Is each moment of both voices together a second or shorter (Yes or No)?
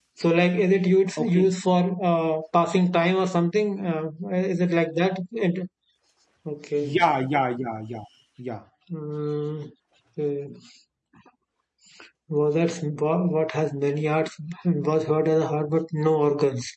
Yes